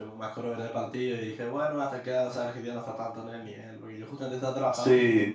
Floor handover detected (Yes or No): No